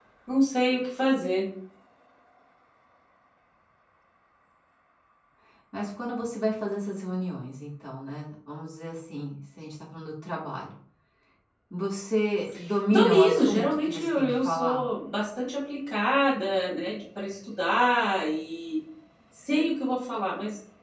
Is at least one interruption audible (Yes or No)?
Yes